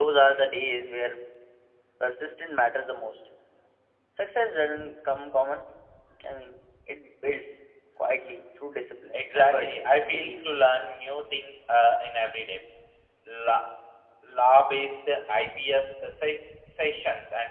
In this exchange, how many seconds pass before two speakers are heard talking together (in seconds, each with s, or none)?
9.1 s